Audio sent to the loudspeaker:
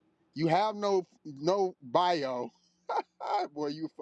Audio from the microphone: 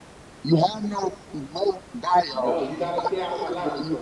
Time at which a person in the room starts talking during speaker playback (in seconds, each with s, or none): 2.3 s